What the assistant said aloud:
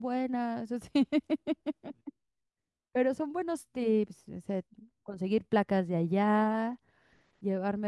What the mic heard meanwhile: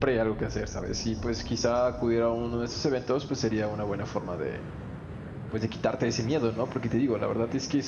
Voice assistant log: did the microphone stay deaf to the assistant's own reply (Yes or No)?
Yes